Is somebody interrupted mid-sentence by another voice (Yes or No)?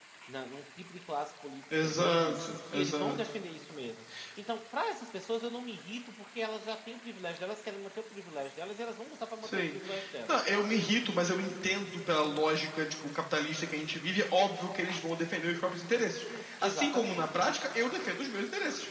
Yes